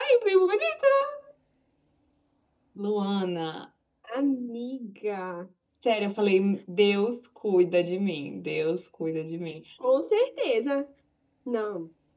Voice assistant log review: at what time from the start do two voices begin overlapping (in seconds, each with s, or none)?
none